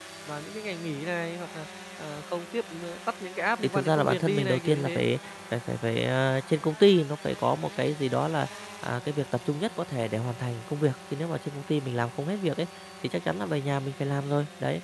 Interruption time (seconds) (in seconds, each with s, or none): 3.6 s